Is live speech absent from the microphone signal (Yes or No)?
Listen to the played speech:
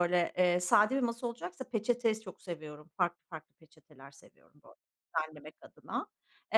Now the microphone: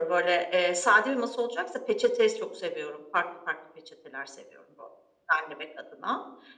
Yes